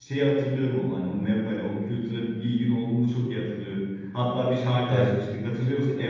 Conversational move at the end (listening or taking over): listening